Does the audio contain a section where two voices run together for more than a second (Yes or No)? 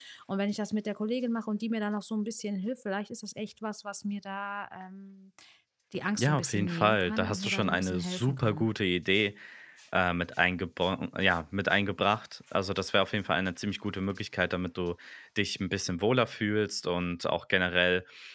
Yes